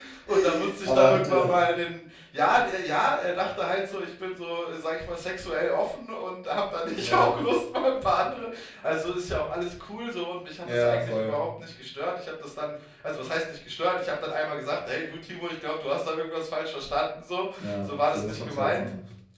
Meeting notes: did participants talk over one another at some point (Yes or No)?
Yes